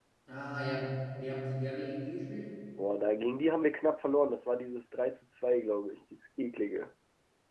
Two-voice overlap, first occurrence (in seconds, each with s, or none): none